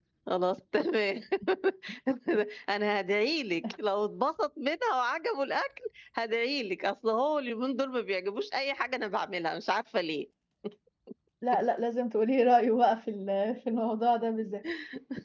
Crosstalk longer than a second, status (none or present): none